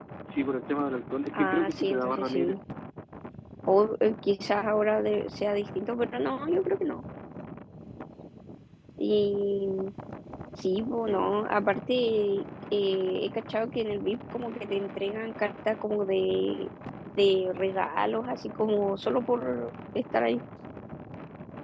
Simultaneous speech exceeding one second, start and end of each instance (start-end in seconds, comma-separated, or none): 1.3-2.6